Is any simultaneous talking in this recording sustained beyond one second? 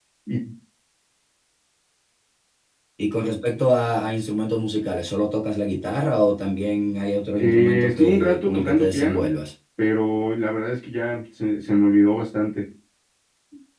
Yes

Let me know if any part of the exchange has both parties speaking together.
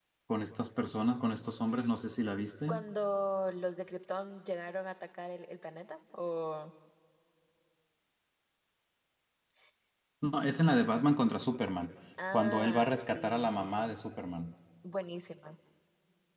Yes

